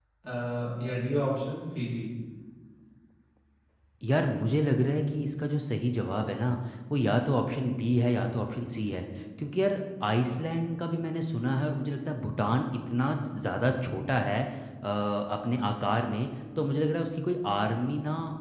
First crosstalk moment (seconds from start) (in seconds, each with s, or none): none